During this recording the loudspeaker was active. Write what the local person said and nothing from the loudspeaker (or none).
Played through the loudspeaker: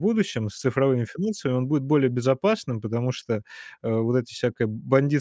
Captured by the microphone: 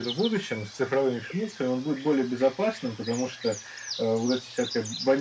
none